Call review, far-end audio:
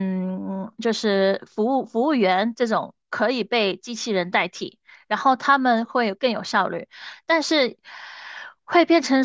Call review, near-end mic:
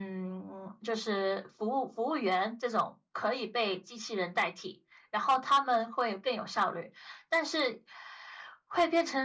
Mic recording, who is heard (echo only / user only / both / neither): echo only